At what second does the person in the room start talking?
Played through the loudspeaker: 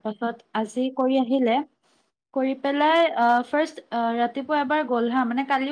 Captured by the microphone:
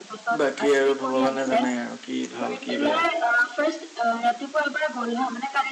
0.4 s

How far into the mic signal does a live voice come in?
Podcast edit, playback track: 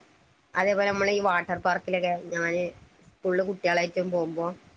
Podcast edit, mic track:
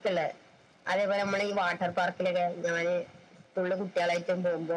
none

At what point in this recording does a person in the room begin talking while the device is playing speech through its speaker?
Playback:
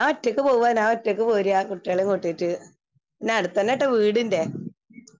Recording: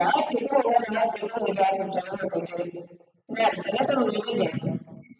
none

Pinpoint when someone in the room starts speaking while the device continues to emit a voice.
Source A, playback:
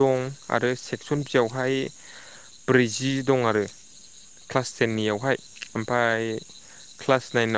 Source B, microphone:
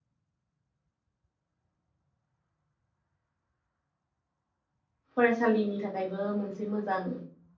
5.2 s

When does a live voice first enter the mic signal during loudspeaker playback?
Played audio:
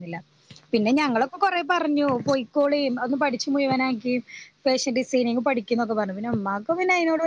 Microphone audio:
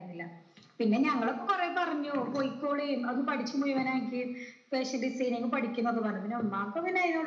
none

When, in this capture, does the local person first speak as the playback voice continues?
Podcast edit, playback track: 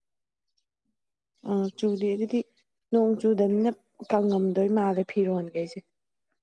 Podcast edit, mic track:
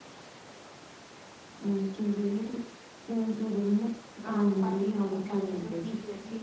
4.2 s

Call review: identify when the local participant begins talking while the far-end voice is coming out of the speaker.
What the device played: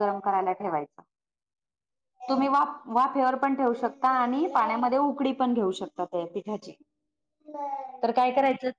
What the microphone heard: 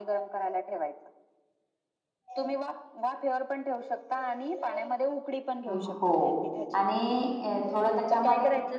5.7 s

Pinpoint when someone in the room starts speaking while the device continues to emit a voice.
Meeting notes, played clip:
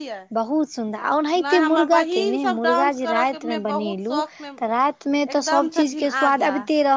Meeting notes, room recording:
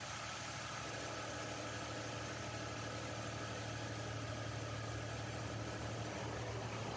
none

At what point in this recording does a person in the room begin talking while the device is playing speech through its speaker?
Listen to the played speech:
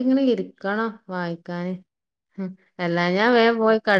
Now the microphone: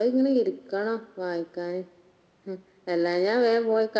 none

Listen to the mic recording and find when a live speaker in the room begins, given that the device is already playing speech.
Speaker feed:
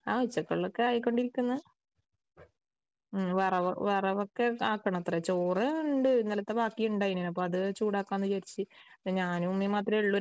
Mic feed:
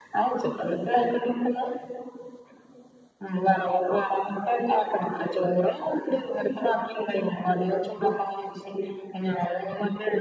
none

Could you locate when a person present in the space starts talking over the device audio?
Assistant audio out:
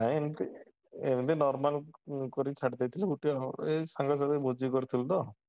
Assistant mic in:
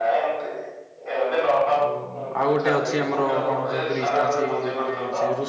1.8 s

